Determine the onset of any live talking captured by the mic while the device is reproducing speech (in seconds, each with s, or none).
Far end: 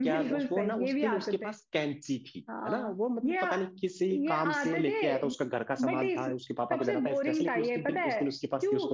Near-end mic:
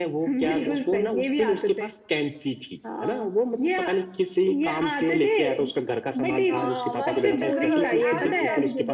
6.5 s